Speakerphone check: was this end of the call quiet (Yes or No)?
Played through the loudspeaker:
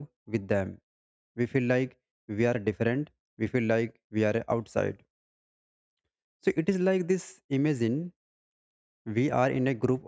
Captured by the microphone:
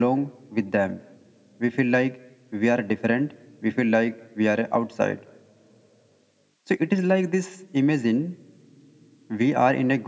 Yes